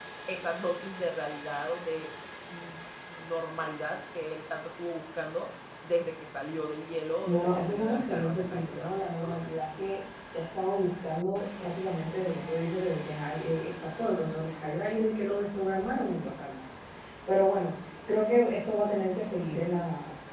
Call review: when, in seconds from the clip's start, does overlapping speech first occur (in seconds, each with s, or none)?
7.2 s